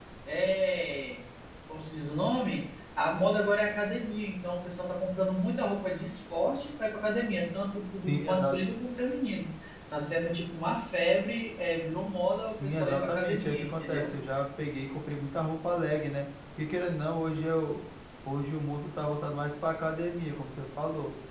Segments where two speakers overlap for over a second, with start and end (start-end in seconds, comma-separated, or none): 12.6-14.0